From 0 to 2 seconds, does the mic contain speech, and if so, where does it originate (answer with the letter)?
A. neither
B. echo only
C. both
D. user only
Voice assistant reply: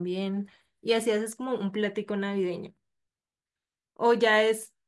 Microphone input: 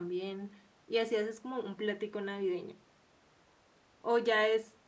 B